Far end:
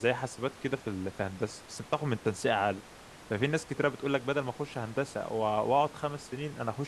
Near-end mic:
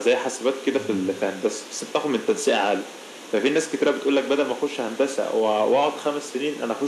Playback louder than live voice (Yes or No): Yes